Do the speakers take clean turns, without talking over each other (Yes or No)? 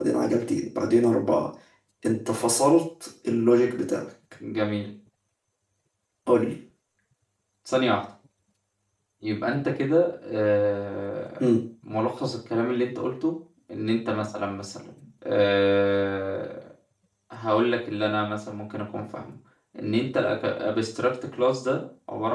Yes